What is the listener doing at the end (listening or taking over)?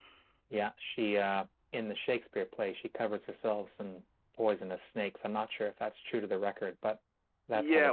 taking over